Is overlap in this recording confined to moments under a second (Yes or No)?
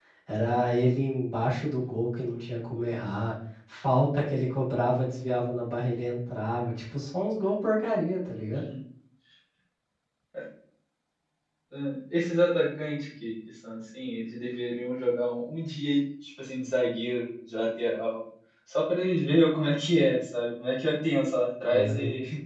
Yes